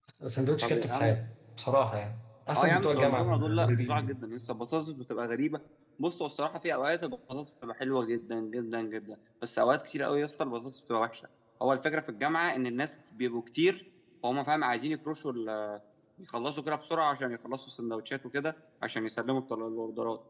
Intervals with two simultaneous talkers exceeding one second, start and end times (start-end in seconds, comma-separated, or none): 2.6-4.2